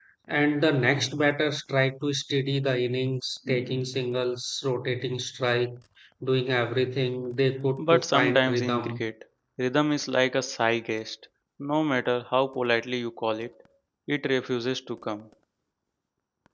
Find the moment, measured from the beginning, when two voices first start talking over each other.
8 s

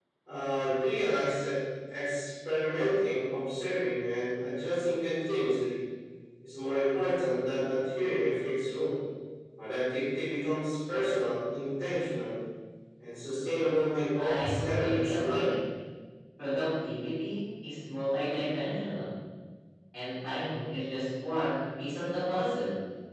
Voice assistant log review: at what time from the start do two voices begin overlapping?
14 s

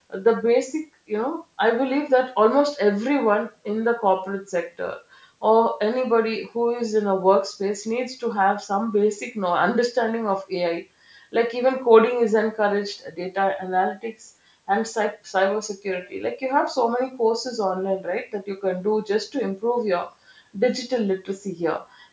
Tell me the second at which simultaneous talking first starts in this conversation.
none

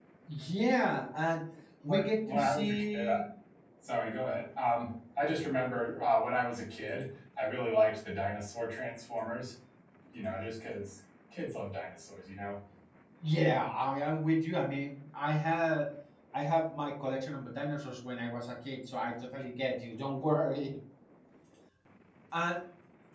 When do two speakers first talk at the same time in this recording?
2 s

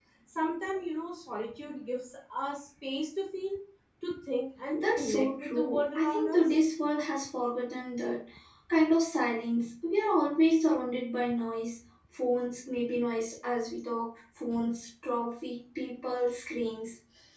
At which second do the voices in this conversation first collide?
5 s

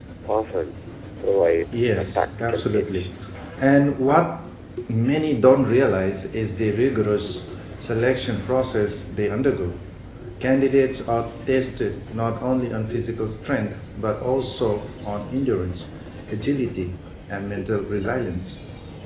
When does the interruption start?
2 s

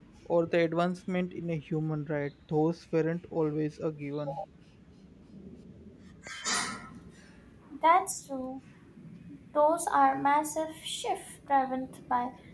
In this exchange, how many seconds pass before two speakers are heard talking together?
none

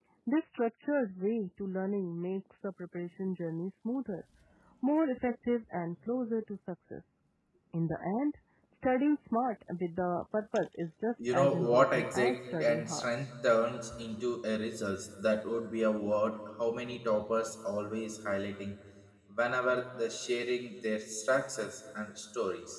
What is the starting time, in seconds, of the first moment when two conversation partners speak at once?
11 s

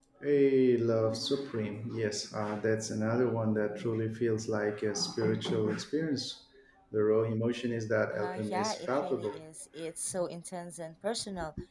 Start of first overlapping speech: 8 s

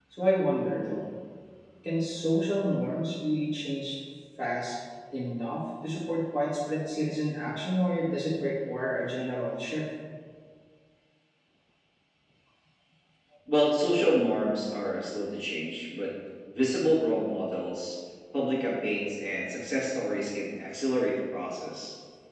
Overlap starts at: none

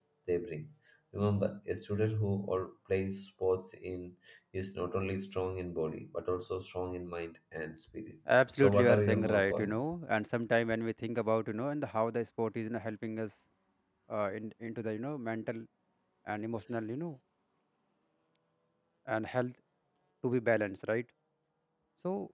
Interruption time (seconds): 8 s

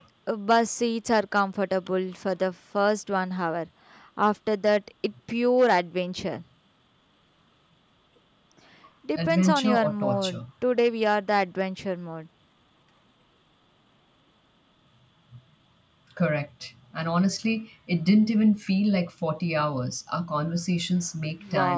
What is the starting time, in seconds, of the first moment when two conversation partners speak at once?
9 s

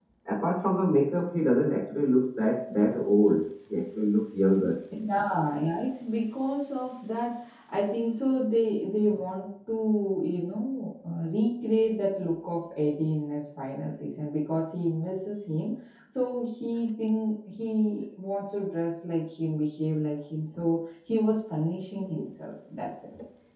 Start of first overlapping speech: none

